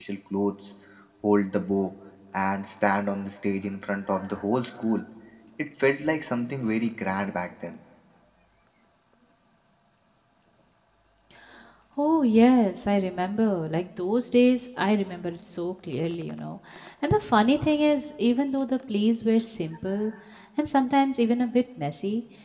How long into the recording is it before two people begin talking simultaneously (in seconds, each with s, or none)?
none